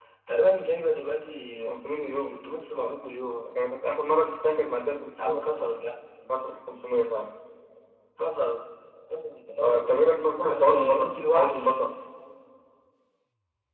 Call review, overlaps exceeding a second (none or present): present